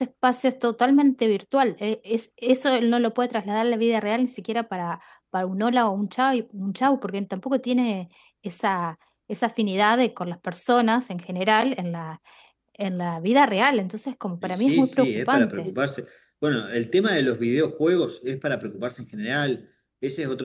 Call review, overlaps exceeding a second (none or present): present